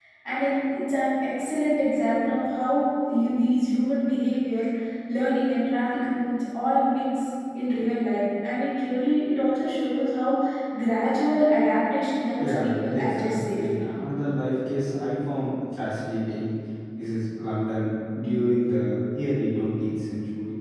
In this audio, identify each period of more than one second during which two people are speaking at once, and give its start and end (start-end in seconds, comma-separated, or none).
12.4-13.9